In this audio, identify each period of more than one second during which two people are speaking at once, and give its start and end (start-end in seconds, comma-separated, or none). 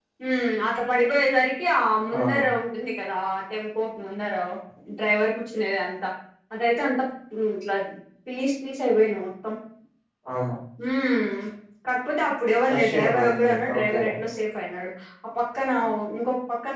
12.7-14.0